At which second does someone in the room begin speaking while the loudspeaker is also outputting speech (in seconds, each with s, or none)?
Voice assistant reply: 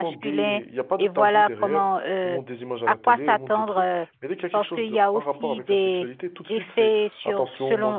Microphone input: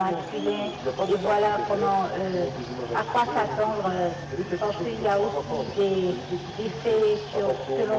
none